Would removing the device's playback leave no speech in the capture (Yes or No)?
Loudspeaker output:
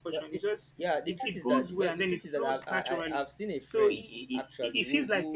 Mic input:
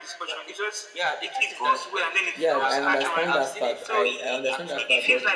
No